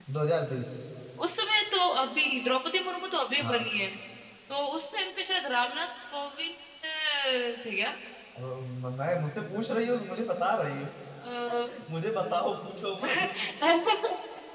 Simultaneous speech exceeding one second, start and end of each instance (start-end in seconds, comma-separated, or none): none